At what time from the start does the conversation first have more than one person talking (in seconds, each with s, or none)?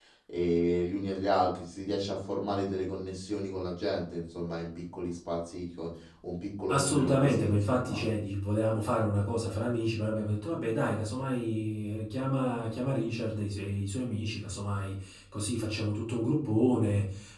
6.7 s